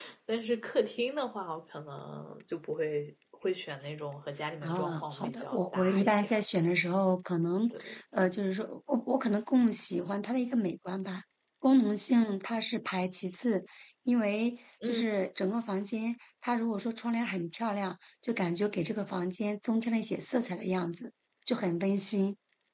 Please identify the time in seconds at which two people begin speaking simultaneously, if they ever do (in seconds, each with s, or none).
4.6 s